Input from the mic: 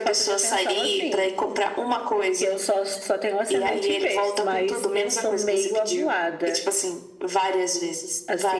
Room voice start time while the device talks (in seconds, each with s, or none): none